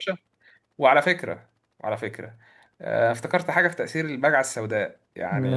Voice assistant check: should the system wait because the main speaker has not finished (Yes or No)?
Yes